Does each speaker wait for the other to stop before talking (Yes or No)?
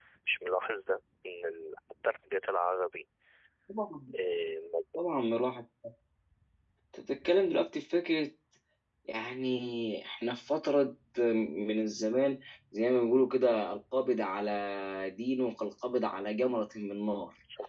Yes